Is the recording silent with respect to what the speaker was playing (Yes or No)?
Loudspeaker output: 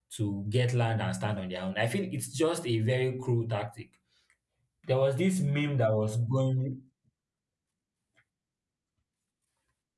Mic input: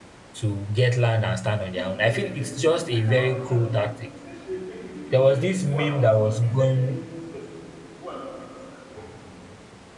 No